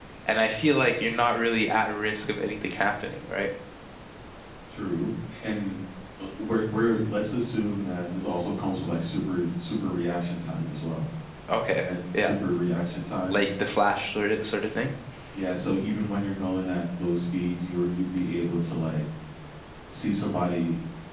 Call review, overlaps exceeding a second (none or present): none